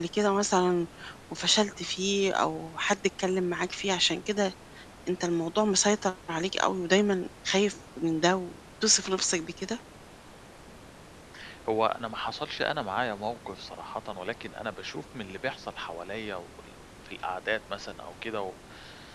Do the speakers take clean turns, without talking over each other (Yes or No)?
Yes